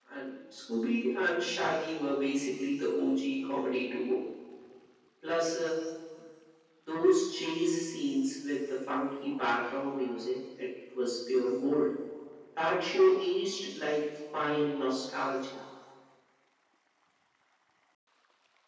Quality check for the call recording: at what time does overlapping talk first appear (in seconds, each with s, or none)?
none